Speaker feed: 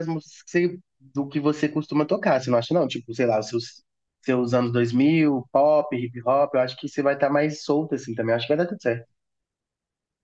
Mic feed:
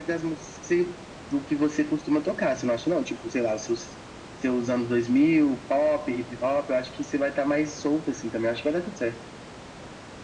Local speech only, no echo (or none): none